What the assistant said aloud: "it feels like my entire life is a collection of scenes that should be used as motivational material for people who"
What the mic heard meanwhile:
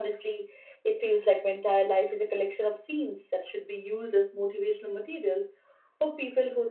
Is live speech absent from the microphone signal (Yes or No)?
Yes